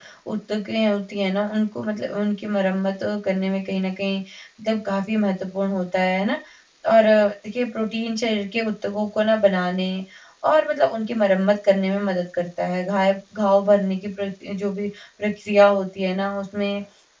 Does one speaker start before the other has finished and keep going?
No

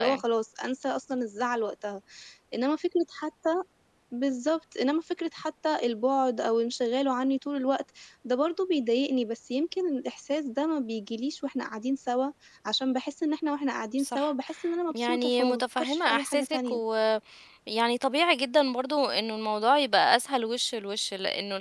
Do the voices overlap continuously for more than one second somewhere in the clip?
Yes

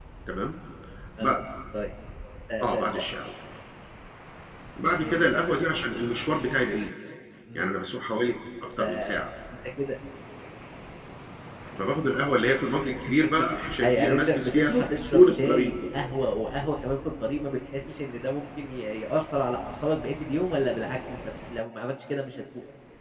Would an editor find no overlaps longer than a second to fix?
No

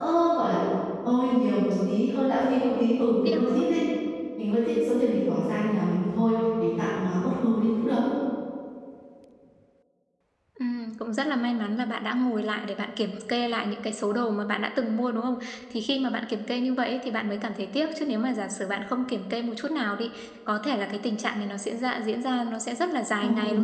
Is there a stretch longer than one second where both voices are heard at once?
No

